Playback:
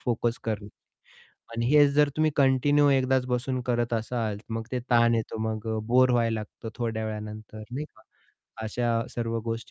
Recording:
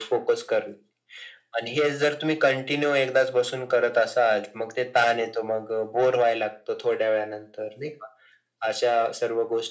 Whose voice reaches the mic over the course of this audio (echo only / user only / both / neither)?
echo only